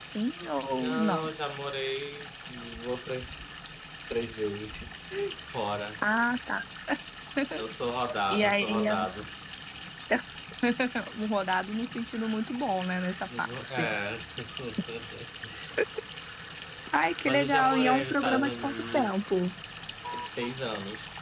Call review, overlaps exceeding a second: present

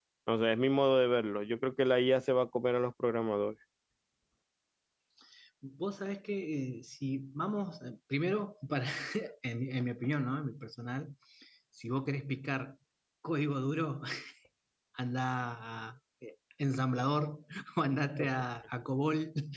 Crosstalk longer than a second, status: none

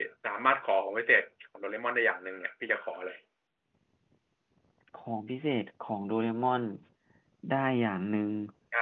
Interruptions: none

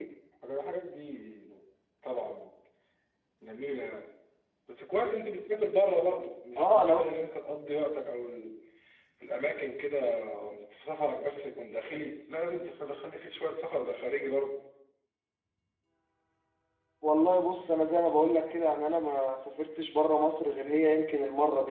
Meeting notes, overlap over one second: none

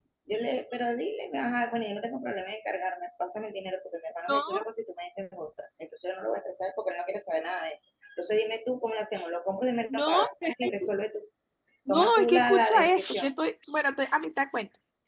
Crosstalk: present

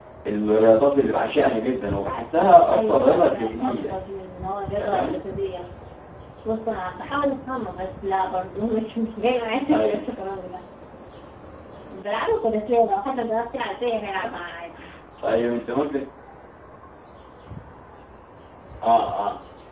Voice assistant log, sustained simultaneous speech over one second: present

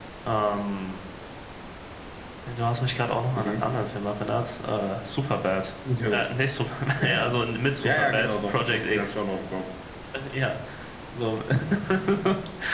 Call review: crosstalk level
present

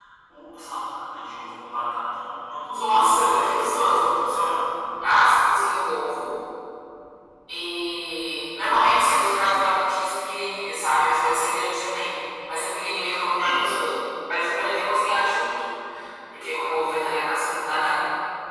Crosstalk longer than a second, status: present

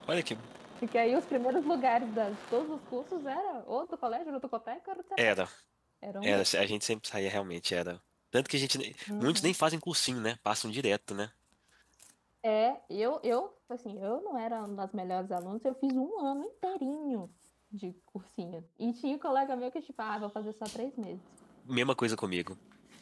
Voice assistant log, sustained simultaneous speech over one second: none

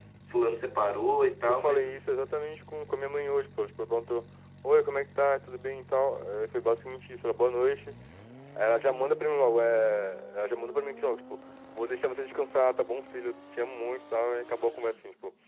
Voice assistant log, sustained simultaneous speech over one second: none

